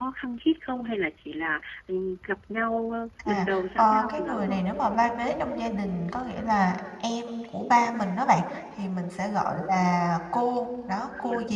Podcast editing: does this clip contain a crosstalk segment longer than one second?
Yes, from 3.2 s

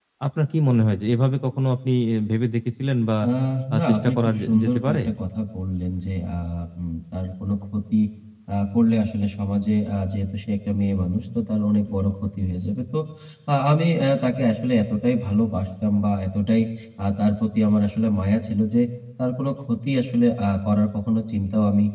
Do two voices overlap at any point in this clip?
Yes, from 3.8 s

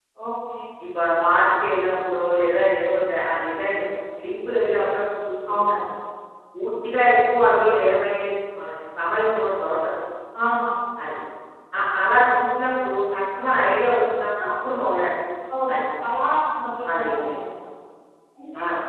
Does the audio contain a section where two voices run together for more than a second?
No

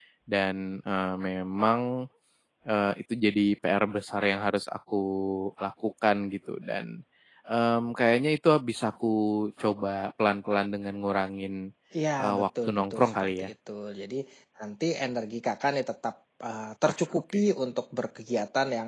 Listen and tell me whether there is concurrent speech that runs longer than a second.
Yes, from 12.2 s

